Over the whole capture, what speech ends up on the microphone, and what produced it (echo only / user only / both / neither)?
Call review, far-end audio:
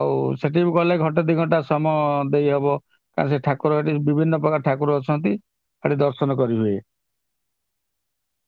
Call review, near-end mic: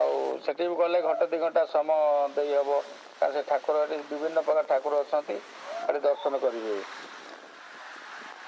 echo only